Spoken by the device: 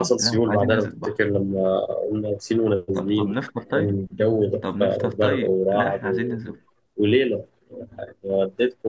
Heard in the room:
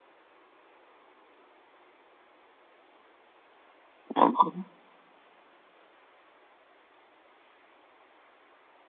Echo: none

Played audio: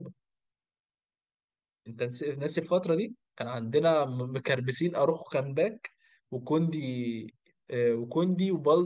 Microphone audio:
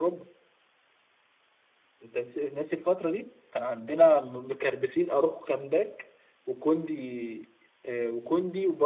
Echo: present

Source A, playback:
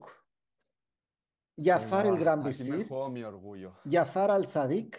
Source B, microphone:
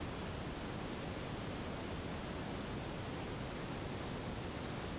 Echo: none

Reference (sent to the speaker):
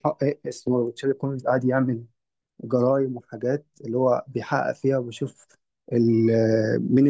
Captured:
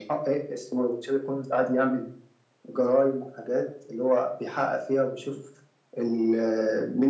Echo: present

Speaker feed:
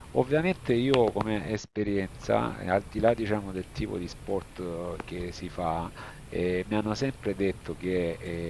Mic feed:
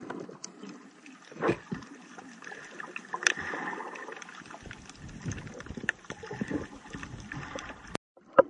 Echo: none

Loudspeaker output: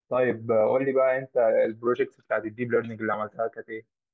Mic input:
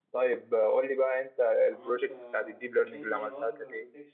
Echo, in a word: present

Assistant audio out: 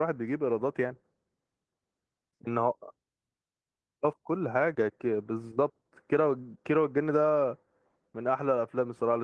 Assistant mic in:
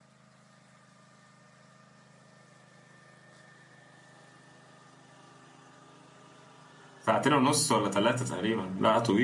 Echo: none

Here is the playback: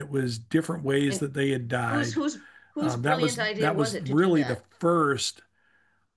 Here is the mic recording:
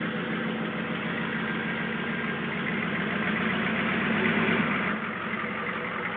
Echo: none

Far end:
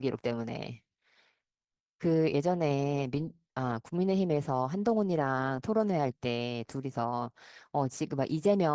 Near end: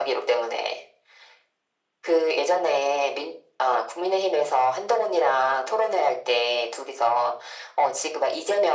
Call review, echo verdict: present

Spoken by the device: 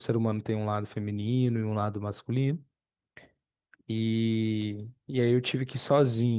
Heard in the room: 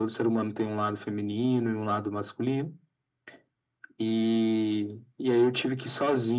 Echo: present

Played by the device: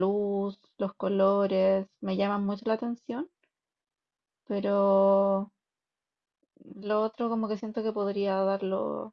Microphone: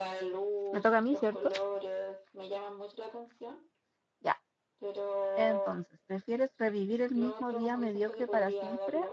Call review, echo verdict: present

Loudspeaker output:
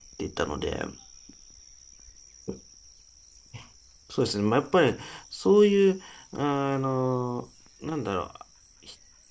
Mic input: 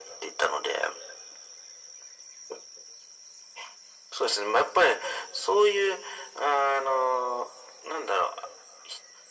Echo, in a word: present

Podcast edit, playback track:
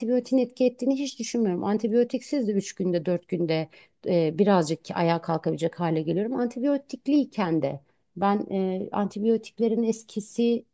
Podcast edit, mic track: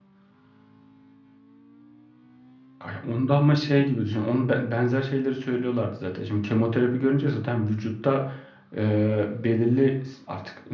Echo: none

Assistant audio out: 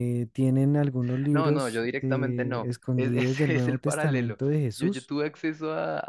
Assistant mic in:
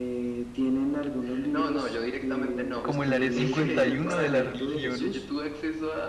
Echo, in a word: present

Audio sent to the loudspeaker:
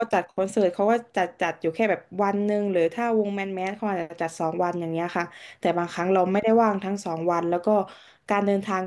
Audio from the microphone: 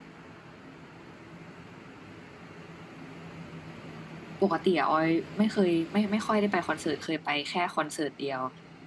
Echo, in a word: none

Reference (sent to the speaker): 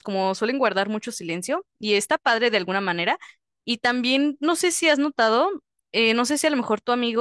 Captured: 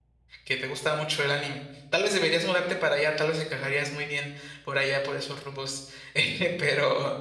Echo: none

